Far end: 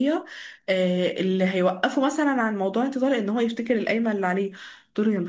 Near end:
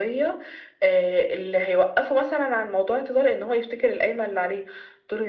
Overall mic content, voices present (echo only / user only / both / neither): echo only